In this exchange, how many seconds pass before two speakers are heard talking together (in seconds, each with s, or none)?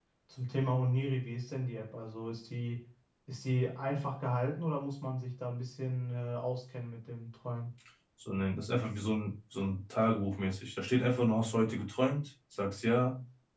none